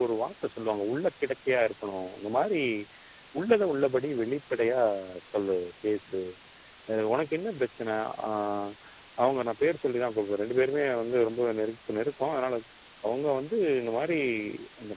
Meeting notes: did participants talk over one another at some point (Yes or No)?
No